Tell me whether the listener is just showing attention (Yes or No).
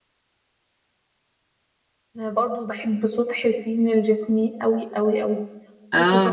Yes